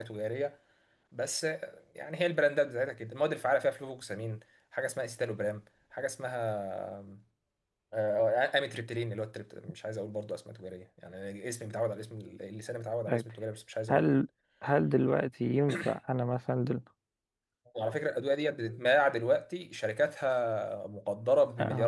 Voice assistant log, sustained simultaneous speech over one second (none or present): none